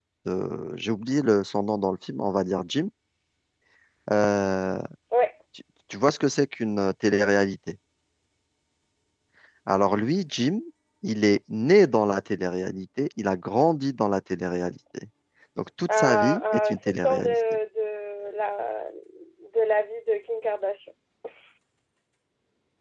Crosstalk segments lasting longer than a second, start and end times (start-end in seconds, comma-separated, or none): 15.9-17.3